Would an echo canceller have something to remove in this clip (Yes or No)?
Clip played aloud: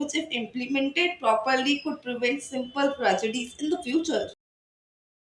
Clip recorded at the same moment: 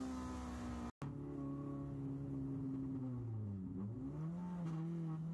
No